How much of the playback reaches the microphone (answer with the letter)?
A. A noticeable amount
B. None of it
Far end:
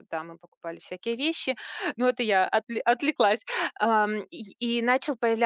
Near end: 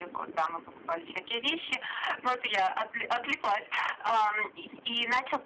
A